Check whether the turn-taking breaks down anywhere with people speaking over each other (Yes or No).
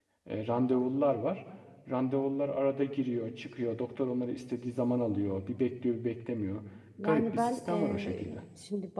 Yes